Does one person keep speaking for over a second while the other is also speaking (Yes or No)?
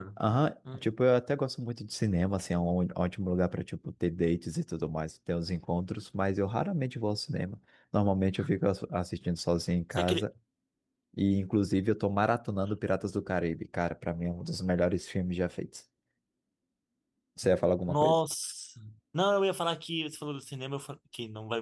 No